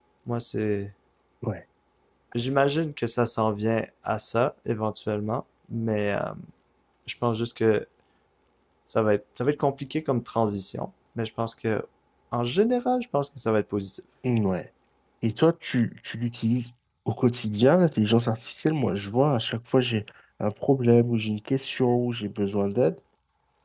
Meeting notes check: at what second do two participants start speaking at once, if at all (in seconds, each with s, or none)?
none